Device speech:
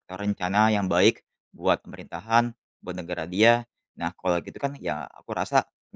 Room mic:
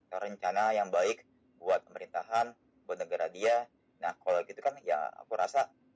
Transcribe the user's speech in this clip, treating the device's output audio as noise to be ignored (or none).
none